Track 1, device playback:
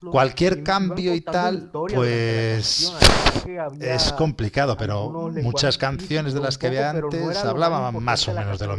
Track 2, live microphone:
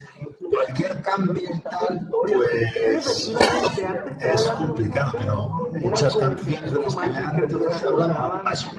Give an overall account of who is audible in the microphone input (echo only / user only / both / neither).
both